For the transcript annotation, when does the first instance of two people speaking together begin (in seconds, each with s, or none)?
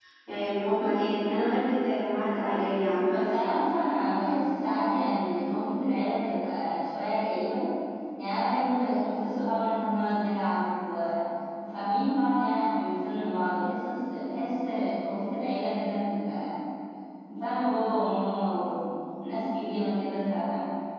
none